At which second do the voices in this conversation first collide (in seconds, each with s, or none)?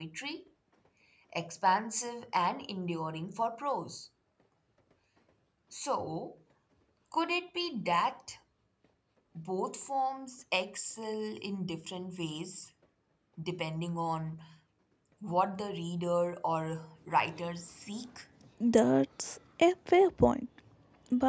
none